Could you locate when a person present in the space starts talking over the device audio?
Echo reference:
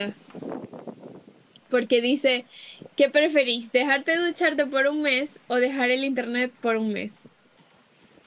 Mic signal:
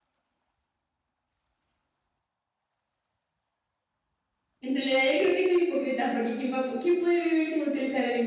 5 s

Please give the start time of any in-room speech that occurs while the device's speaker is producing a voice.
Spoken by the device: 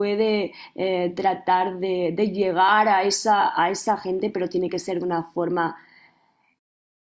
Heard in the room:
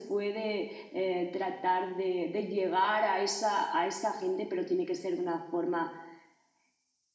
none

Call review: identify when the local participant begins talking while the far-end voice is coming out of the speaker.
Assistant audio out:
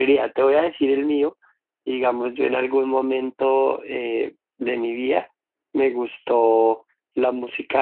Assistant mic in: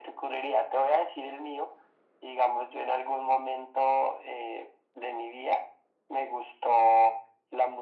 none

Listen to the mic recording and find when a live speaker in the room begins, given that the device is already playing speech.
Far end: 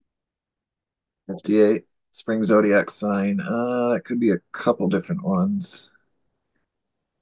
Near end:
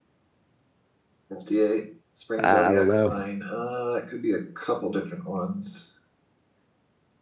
2 s

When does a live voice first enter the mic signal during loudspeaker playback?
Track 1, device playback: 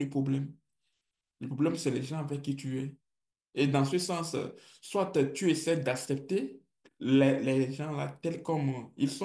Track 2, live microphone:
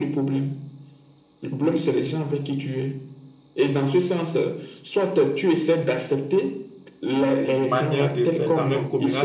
8 s

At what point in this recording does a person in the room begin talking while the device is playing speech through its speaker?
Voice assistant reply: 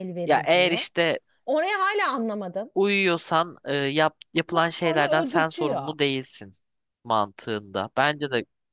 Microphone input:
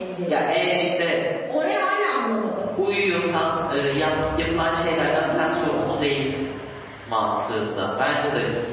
none

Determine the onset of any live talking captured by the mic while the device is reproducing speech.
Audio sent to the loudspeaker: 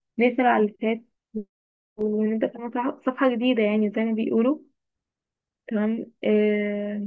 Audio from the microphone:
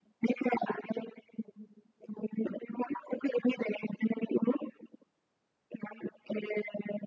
none

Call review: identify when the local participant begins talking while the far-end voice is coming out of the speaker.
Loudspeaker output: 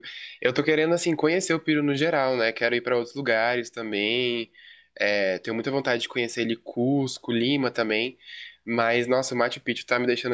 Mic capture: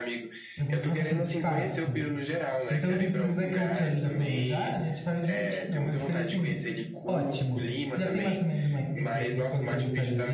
1 s

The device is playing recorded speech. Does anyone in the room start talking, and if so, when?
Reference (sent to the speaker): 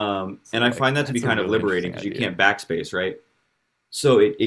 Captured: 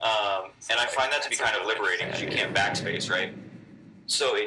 2 s

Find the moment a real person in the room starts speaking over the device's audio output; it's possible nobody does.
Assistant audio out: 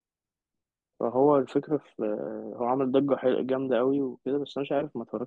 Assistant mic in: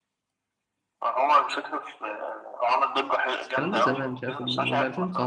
3 s

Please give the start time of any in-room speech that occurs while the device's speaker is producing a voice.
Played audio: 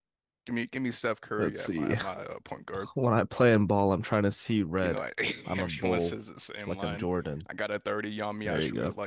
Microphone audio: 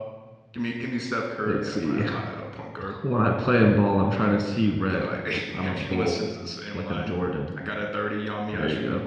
none

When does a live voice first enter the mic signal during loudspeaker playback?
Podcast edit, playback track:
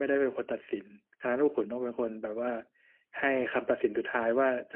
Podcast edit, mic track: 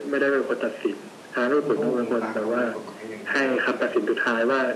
2 s

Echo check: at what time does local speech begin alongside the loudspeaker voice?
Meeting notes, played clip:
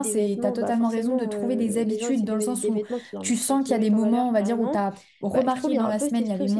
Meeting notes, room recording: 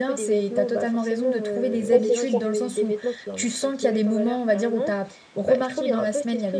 2 s

